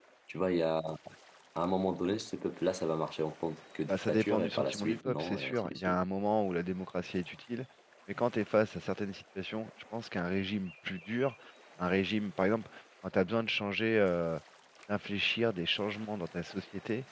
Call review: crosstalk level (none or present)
present